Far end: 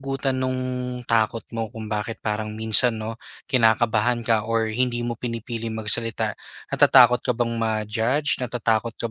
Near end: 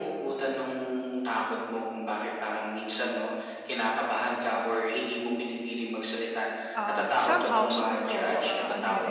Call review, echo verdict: present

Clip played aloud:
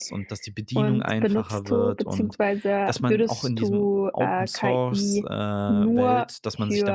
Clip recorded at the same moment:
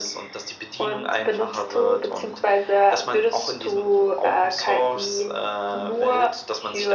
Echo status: present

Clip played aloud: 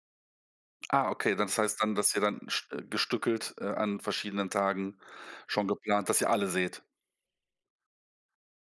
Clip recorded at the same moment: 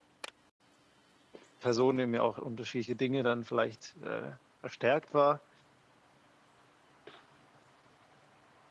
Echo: none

